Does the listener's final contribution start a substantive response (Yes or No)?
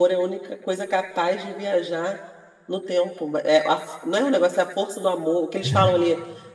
No